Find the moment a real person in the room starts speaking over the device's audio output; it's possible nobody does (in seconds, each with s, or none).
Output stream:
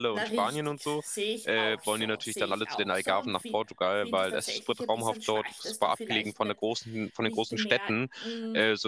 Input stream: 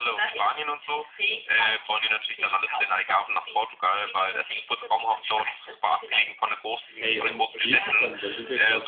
6.9 s